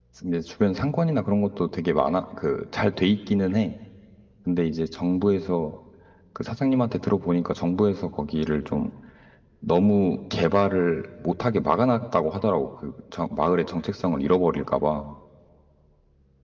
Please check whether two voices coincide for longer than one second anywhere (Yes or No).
No